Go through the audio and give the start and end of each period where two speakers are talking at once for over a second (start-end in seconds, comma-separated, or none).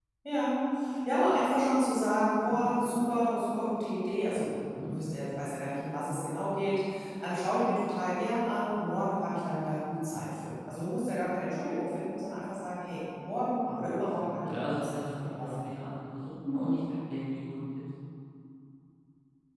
13.8-15.7